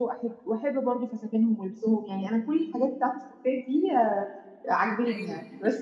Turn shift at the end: No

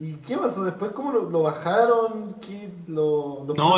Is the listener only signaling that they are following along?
No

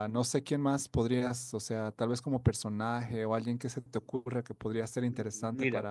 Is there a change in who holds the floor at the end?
Yes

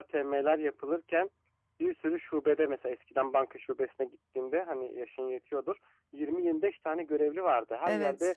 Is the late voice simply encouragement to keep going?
Yes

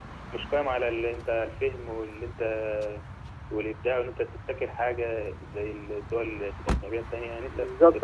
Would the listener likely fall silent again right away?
No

